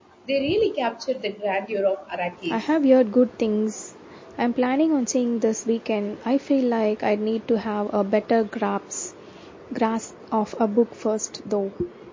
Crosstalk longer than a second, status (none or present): none